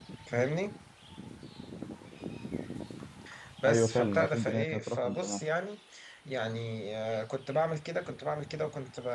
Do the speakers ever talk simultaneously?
Yes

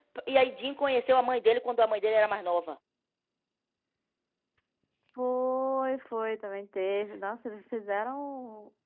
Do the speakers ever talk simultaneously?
No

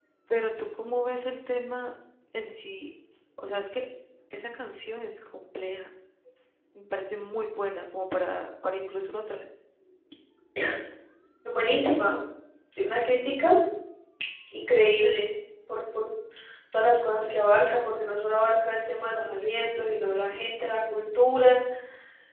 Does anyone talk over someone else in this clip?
No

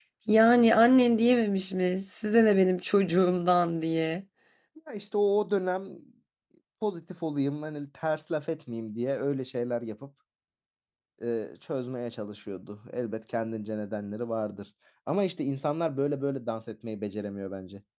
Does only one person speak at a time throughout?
Yes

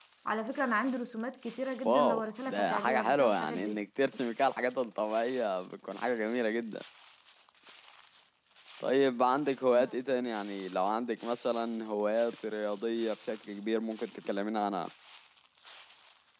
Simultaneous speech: Yes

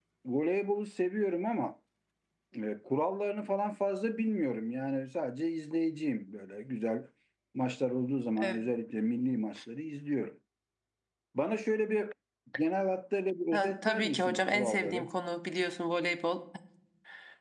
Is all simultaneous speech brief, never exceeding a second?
No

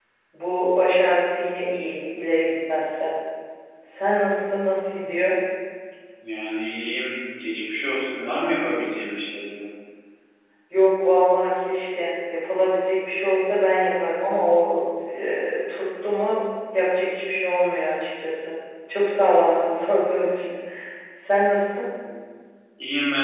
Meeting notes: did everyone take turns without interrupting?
Yes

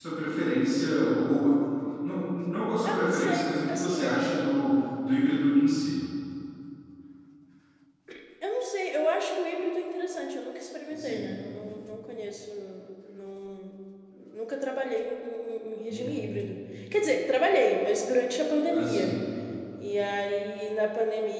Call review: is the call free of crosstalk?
No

